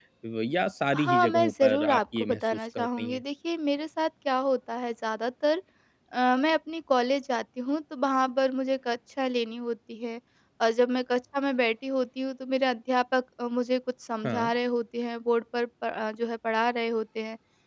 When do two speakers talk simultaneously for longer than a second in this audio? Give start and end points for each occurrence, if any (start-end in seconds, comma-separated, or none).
0.9-3.2